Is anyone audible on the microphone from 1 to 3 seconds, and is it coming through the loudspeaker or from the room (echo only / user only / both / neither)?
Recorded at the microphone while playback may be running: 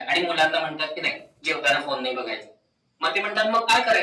echo only